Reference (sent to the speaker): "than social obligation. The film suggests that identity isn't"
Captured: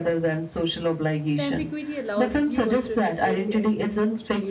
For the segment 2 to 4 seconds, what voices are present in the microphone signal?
both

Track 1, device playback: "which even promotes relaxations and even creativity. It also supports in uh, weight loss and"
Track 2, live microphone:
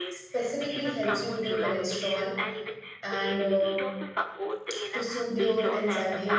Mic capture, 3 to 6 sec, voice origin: both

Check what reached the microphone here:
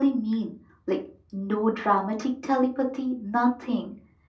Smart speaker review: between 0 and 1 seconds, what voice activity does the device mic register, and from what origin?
echo only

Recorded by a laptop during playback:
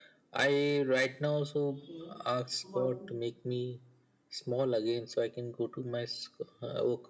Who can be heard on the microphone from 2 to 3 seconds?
both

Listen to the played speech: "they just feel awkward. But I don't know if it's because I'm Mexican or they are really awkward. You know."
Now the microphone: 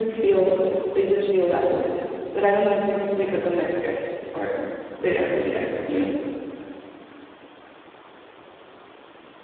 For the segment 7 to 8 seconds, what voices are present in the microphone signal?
neither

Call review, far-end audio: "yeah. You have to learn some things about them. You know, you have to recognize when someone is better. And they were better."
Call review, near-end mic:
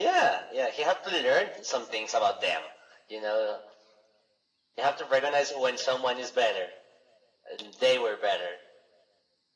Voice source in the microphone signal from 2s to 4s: echo only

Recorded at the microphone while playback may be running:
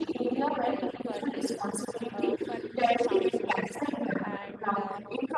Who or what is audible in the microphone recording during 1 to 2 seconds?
both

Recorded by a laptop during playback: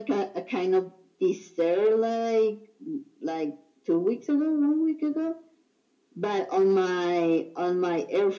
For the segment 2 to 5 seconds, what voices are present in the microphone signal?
echo only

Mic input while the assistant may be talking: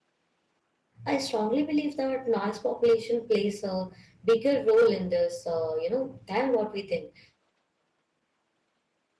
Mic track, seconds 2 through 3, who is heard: user only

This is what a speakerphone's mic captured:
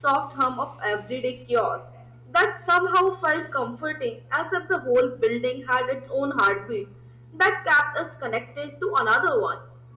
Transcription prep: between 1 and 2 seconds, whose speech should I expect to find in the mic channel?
user only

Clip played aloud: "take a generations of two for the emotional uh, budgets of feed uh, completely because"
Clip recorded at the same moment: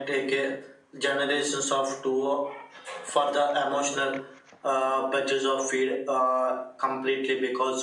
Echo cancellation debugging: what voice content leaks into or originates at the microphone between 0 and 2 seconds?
echo only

